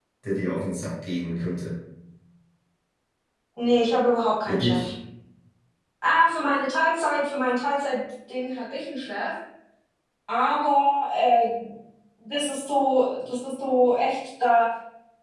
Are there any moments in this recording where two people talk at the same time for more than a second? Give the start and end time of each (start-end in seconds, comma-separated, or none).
none